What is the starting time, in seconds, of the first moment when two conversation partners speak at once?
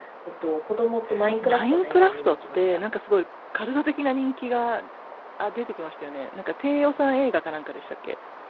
1.4 s

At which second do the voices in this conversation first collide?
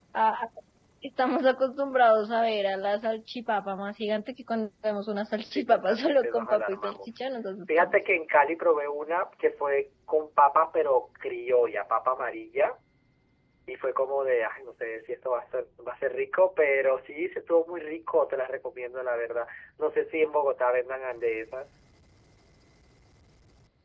5.5 s

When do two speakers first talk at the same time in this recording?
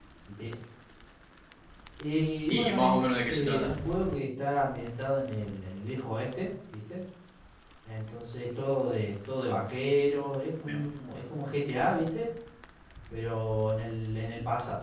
2.5 s

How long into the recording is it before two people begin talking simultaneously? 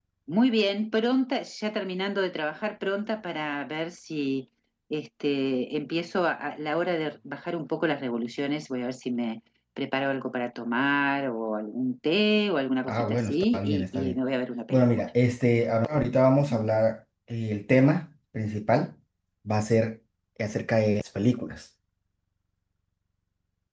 12.9 s

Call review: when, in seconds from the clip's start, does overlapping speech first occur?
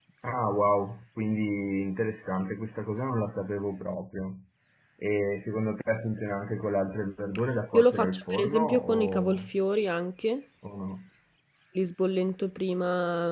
7.7 s

